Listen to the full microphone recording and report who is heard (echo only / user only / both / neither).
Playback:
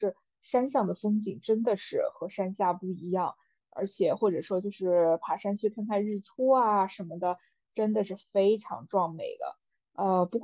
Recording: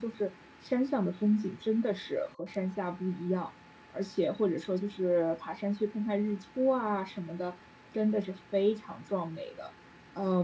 echo only